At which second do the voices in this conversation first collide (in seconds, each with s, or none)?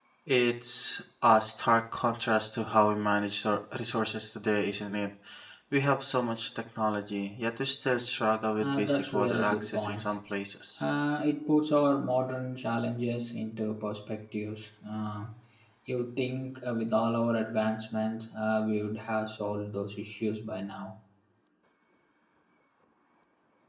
8.6 s